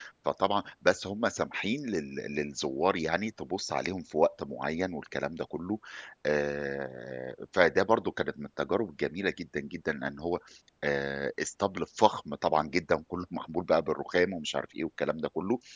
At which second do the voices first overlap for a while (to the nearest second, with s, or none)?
none